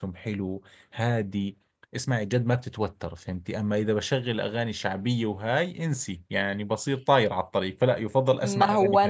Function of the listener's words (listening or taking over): taking over